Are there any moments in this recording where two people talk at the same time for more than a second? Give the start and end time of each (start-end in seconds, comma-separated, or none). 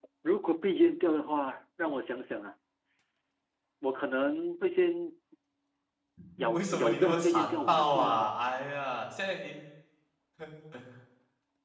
6.5-8.3